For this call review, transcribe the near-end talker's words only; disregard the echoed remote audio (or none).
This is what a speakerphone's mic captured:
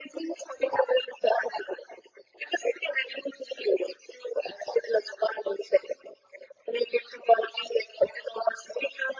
none